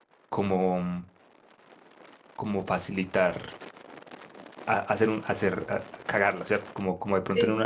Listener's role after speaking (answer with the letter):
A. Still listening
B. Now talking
A